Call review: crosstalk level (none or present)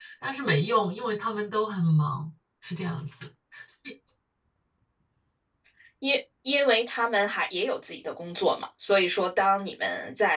none